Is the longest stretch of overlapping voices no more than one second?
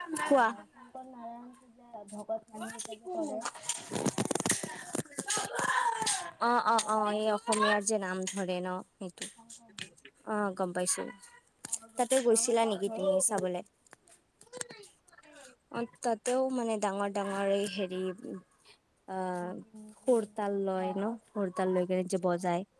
No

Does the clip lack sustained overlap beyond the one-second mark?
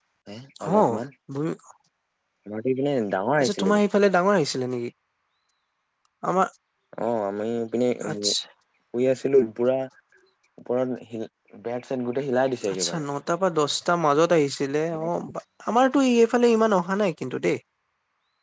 Yes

